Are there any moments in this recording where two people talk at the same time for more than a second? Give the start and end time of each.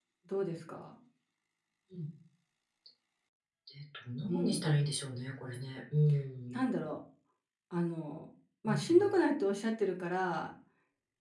none

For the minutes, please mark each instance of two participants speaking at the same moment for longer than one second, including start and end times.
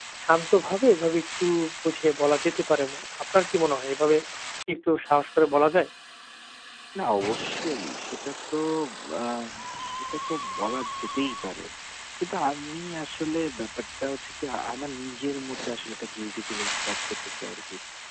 none

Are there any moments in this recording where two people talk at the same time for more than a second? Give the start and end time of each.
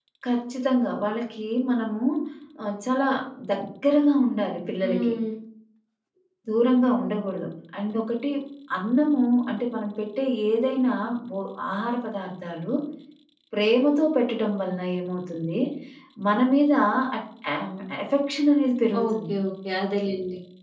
none

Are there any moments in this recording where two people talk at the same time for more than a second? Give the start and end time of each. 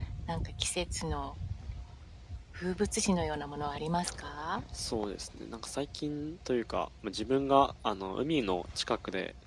none

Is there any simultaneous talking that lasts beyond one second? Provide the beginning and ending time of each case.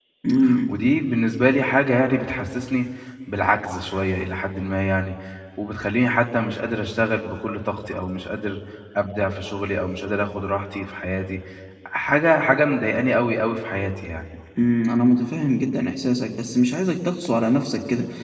none

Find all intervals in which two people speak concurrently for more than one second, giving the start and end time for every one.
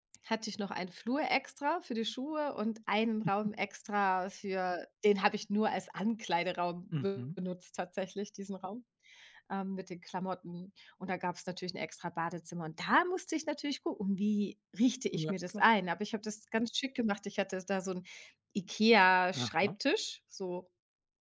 none

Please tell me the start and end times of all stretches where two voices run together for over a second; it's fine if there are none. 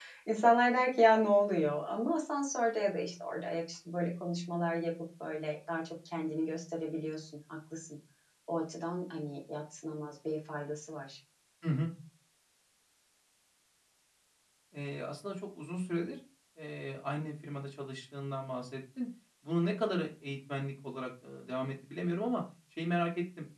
none

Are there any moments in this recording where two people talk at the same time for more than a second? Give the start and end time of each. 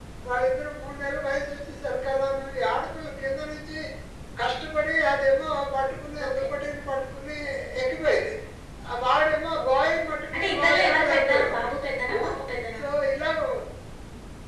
10.3-11.7

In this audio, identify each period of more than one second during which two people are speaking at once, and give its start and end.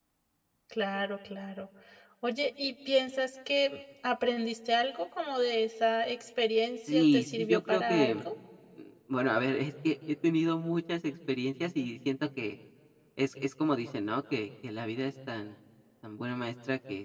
6.8-8.3

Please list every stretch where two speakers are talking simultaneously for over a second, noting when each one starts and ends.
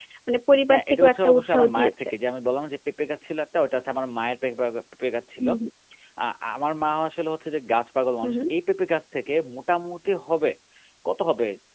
0.7-2.1

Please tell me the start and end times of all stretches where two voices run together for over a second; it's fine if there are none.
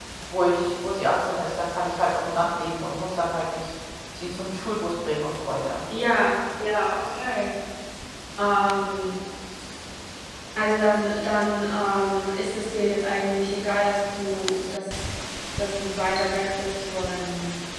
none

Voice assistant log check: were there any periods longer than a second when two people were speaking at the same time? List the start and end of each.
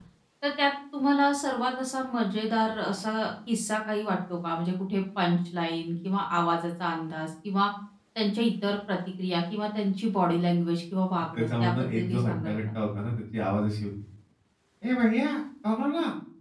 11.4-12.6

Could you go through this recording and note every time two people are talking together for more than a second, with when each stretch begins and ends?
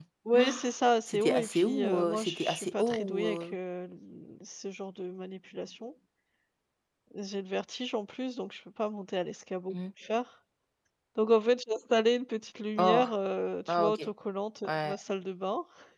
1.1-3.6

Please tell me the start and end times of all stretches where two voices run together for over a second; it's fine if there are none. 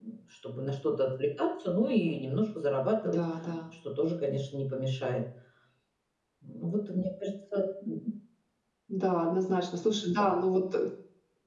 none

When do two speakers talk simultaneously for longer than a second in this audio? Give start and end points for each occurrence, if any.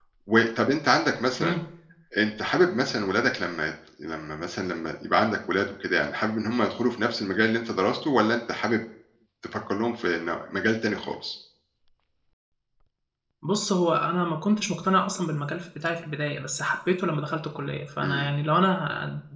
none

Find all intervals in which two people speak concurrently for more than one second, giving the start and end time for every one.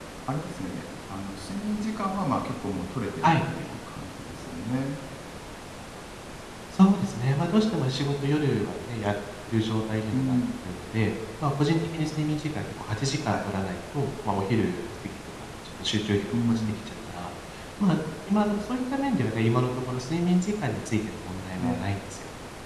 none

